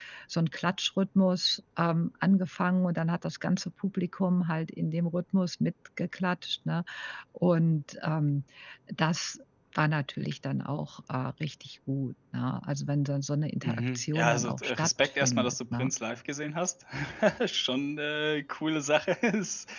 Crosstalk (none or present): present